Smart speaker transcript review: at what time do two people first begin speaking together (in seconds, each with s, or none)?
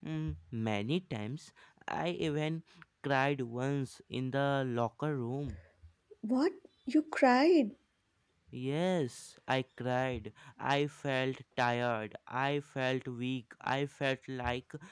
none